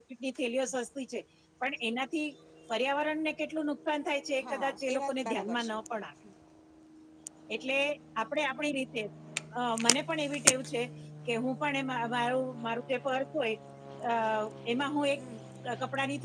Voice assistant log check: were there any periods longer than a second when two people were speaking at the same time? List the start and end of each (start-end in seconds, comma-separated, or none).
4.5-5.8